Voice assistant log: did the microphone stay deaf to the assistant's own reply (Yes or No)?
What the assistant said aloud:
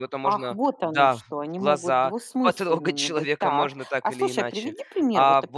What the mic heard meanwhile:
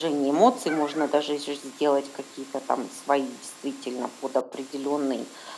Yes